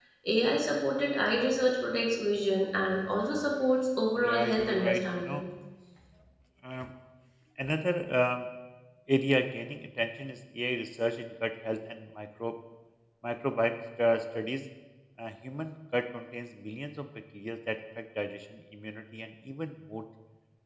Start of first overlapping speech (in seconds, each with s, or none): 4.2 s